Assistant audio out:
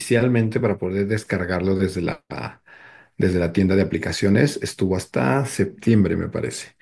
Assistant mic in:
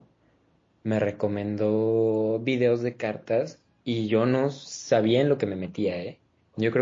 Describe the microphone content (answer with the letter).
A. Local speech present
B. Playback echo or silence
A